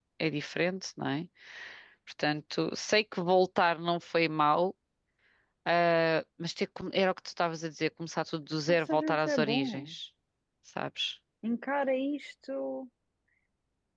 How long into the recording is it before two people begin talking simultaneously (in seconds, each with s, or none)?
8.7 s